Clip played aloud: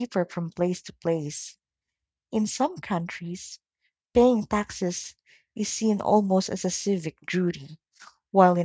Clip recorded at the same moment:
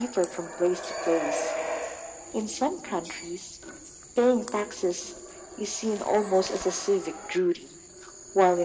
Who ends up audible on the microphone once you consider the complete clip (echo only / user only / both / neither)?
echo only